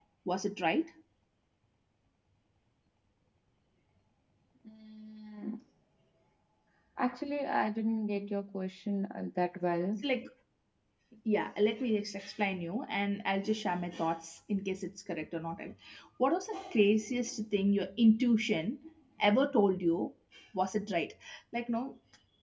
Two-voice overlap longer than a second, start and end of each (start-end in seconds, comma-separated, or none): none